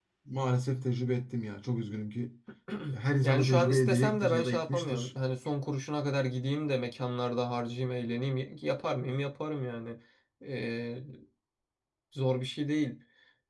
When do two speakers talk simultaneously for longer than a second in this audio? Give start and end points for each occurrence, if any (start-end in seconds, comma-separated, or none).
3.2-5.1